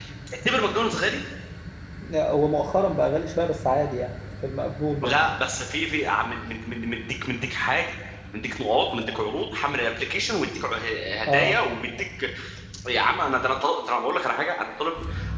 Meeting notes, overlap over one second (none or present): none